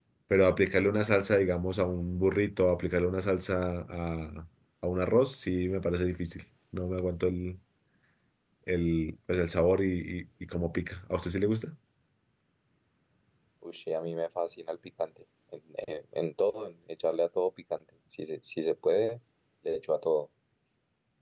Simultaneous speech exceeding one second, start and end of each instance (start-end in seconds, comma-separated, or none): none